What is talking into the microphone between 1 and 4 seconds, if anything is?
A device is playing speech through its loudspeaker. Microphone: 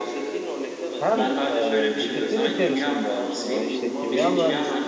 both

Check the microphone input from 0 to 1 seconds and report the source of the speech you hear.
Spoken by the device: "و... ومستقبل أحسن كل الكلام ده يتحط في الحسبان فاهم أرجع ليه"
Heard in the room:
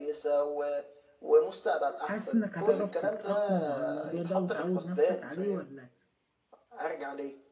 echo only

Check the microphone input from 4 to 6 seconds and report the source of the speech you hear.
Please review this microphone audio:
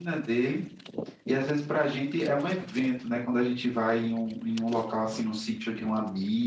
user only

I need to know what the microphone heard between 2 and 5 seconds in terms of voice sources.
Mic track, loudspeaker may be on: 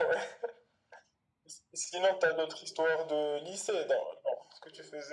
echo only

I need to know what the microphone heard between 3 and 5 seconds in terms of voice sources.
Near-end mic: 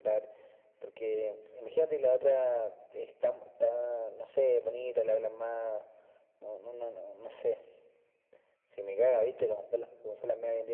echo only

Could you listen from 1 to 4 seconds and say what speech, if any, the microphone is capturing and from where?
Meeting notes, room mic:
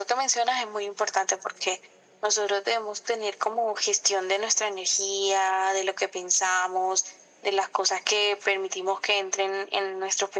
echo only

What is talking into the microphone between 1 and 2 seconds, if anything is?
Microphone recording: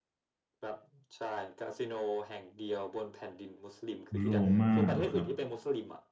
echo only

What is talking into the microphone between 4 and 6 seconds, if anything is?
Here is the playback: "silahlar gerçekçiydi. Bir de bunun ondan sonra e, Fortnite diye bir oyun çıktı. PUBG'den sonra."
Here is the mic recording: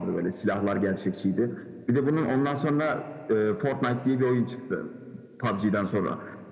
echo only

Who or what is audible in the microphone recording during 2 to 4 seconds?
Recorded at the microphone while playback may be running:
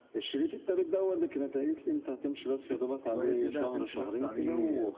both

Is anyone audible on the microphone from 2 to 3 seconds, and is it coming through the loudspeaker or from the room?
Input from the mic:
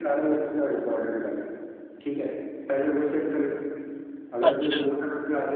echo only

